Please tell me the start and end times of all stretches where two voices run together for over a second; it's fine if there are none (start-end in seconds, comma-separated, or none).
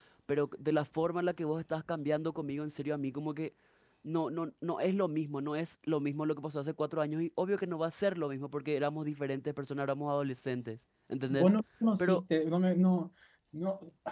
none